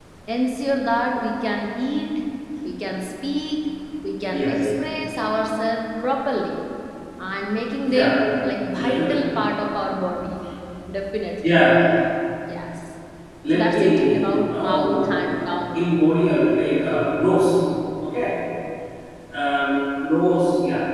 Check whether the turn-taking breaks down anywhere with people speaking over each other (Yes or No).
Yes